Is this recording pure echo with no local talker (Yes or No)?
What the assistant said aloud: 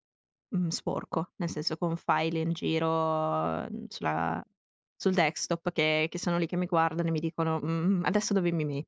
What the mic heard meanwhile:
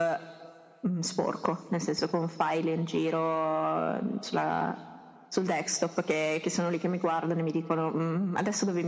Yes